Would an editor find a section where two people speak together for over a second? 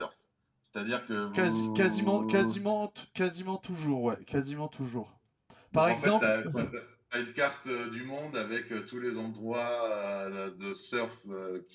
Yes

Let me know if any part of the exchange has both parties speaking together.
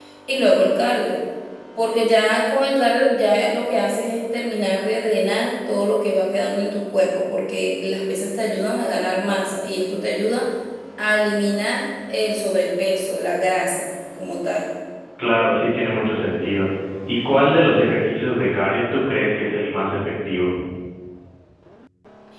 No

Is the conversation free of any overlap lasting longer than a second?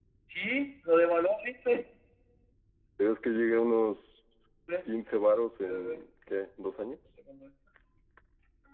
Yes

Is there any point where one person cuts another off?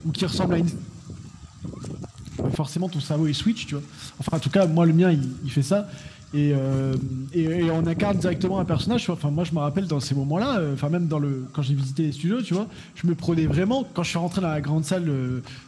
No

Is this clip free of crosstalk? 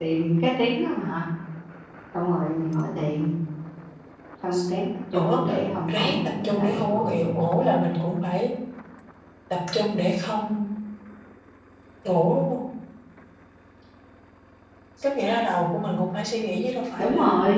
No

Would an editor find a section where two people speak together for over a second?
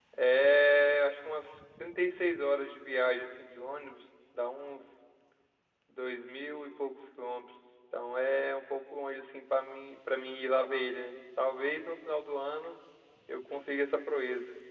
No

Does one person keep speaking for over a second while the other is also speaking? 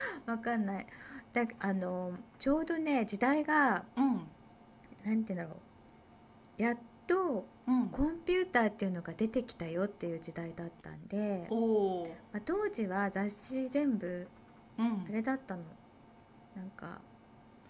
No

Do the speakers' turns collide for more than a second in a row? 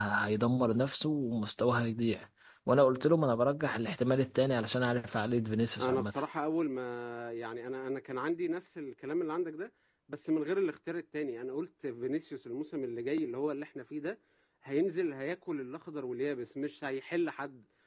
No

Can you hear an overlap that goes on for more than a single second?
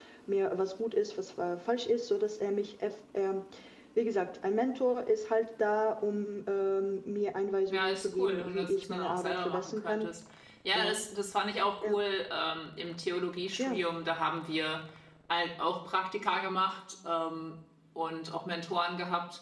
Yes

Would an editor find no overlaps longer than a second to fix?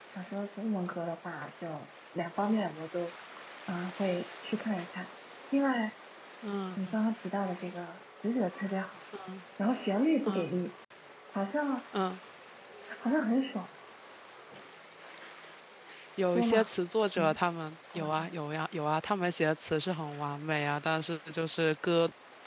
Yes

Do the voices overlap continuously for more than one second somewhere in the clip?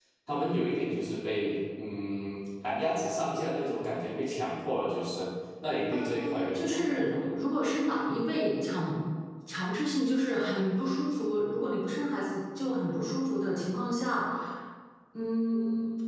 Yes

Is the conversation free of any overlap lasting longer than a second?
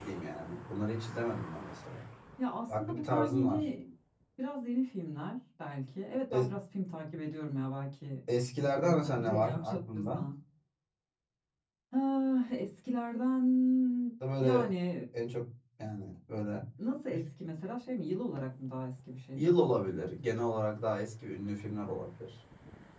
No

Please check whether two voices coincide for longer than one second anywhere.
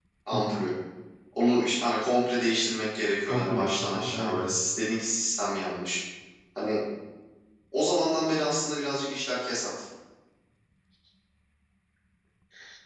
Yes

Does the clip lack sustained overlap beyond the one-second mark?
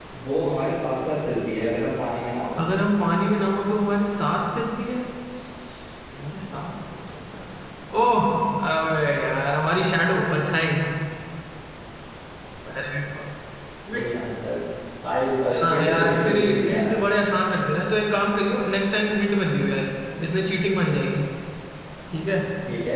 No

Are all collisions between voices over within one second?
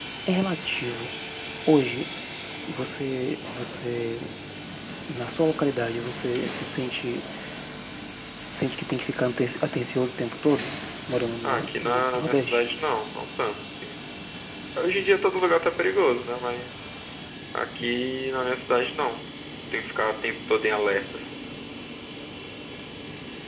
No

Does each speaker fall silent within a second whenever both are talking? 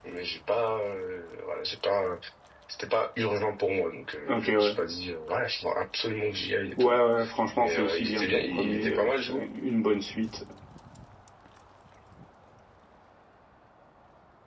No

